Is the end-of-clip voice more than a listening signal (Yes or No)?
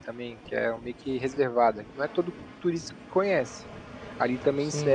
No